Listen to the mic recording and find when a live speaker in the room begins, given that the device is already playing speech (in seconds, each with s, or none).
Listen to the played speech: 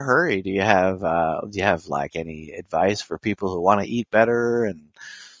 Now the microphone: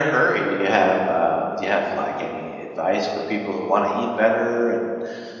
none